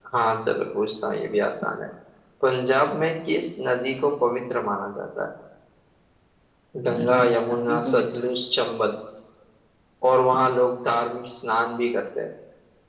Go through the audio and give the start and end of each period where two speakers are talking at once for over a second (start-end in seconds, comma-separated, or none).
7.0-8.2